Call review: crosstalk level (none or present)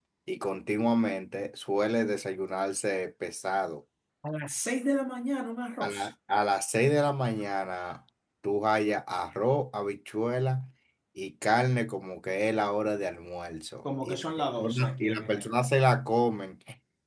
present